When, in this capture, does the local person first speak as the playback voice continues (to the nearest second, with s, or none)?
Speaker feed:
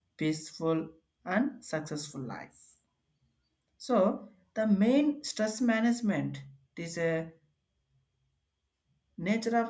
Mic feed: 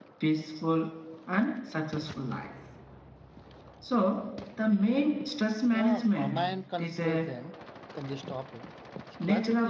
6 s